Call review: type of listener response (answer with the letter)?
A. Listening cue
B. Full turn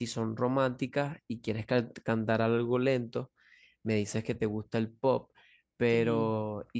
A